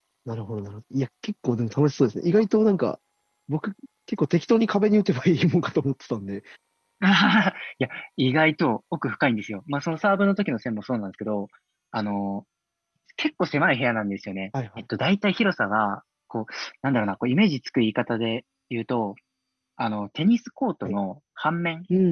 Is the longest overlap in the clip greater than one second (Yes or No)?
No